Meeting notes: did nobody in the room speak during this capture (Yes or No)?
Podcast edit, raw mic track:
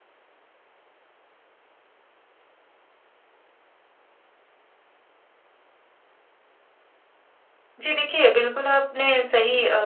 No